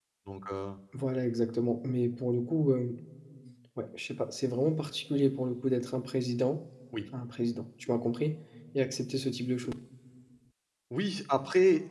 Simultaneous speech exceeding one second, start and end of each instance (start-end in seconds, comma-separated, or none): none